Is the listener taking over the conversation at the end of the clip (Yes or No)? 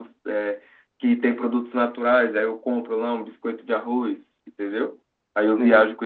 No